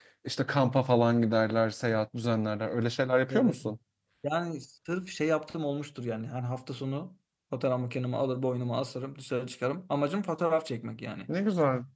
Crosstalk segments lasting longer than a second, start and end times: none

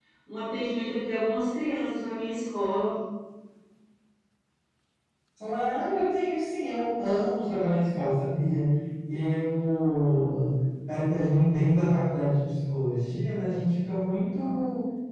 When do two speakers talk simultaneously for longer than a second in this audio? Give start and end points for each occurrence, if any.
none

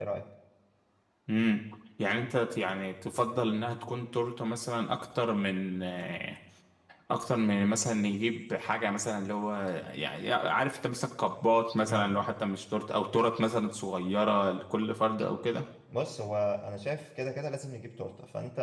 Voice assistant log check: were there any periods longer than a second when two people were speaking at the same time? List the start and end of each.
none

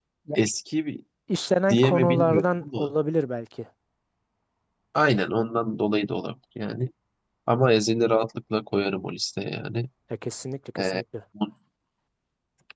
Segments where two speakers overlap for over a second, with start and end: 1.7-2.9

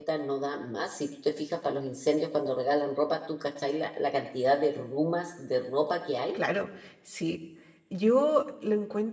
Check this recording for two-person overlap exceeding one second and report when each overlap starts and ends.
none

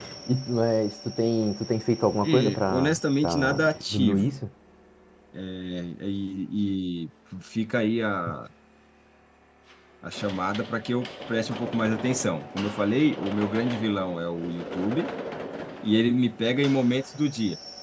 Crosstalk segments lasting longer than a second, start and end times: 2.2-4.4

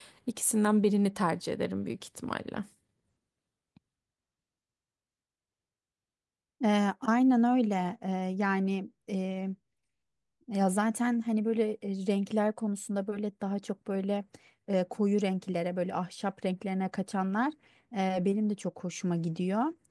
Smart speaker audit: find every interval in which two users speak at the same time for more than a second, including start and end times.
none

